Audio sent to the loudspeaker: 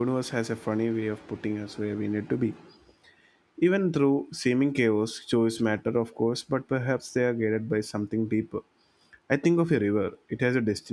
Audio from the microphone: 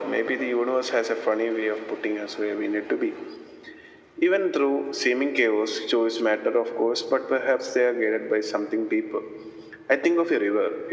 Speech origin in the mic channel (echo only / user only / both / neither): echo only